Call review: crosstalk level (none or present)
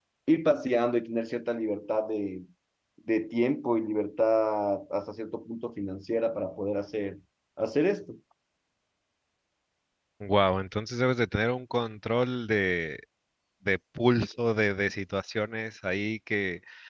none